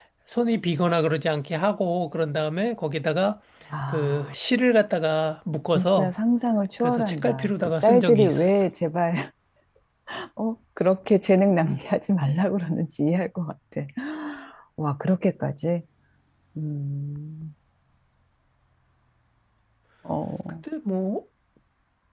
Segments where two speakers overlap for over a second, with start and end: 6.8-8.6

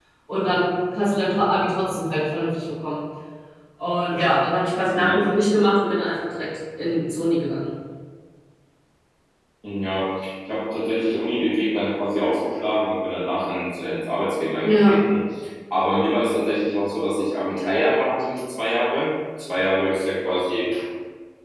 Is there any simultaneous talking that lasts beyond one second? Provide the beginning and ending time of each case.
none

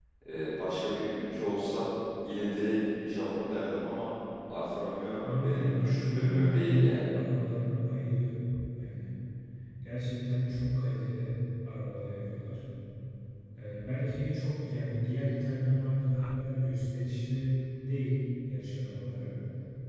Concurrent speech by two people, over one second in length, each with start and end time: 5.2-7.1

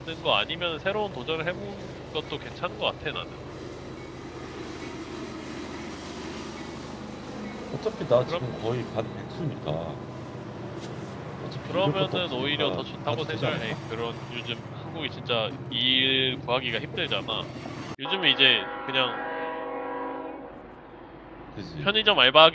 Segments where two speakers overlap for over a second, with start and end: 11.7-13.6

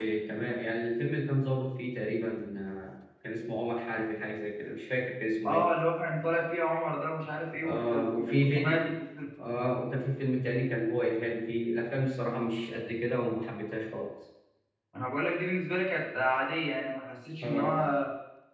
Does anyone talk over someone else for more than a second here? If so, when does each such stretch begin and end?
7.6-8.9

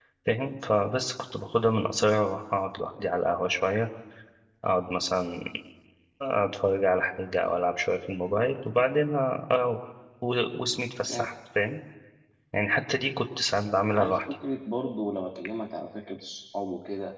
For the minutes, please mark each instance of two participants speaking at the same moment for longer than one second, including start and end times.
none

